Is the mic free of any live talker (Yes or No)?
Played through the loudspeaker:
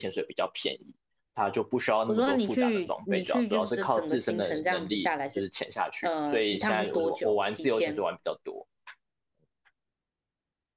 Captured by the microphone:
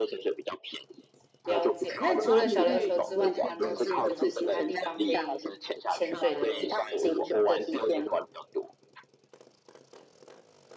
No